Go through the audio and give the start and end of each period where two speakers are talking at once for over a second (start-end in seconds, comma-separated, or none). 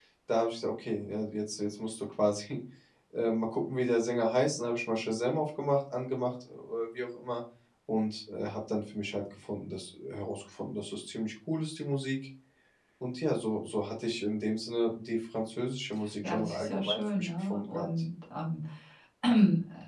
16.2-17.9